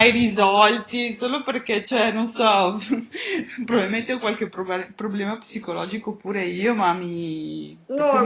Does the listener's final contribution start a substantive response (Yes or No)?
Yes